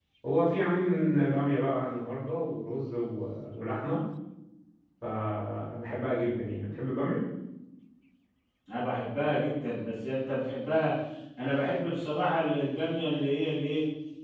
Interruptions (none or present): none